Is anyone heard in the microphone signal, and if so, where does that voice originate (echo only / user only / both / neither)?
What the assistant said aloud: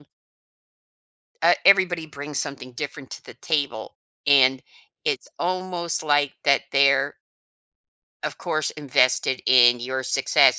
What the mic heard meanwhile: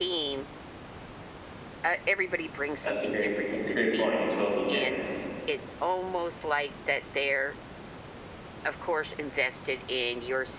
both